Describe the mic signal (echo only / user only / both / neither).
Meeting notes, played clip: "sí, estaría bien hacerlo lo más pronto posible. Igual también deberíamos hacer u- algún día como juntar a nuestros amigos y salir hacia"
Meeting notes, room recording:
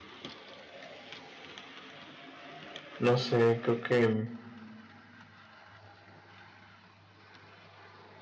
user only